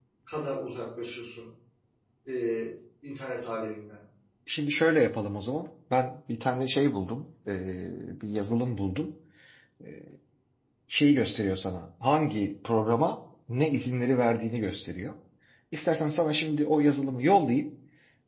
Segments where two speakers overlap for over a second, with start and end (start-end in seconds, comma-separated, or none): none